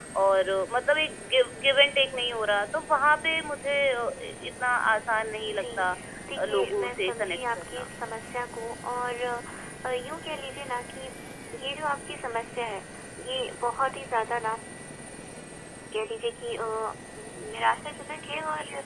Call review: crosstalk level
present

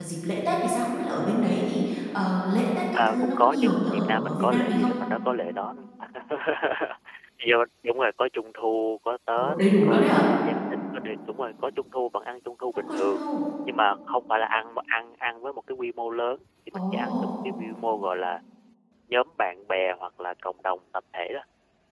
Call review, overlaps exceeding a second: present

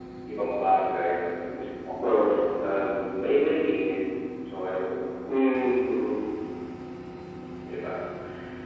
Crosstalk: none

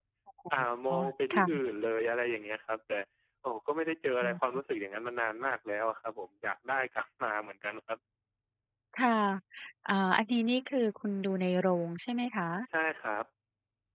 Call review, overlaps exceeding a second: none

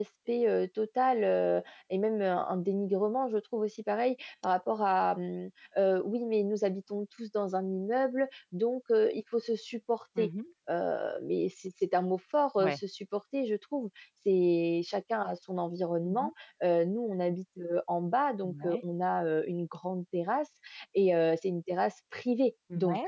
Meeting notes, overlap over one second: none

